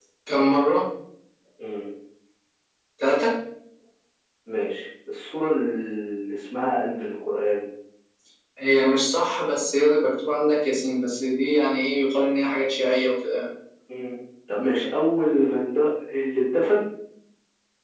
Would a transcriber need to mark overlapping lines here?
No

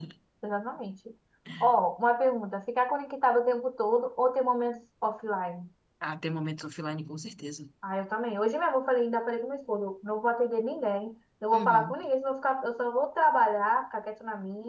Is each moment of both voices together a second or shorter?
Yes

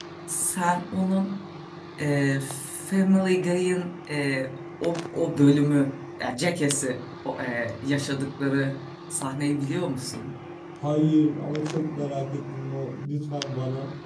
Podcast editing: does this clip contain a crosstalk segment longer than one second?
No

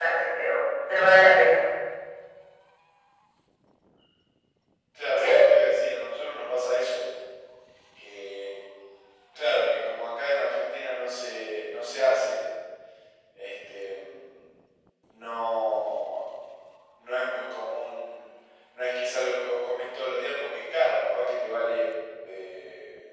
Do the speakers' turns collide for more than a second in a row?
No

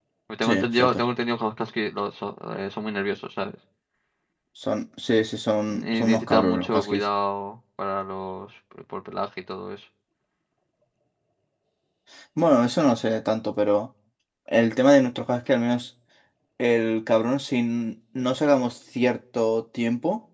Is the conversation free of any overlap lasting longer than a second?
No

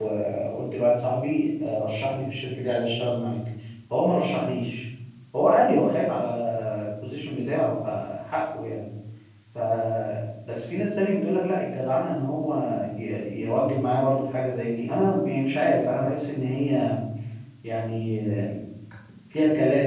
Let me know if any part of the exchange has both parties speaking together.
No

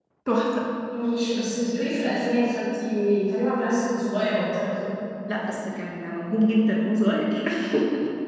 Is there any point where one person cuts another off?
No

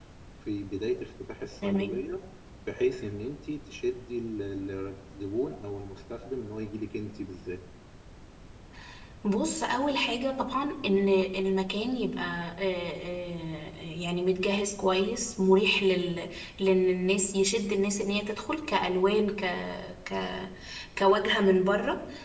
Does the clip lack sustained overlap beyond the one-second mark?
Yes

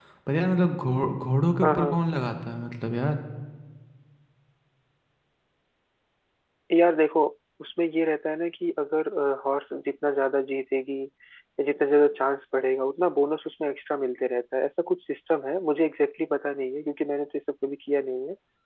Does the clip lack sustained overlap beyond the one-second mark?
Yes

